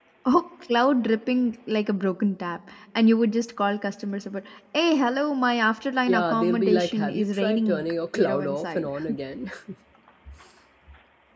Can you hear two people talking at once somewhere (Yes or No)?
Yes